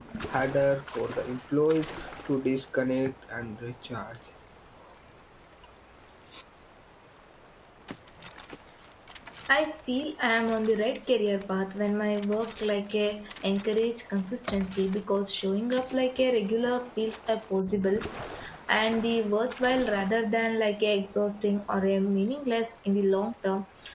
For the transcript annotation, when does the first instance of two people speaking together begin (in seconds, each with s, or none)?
none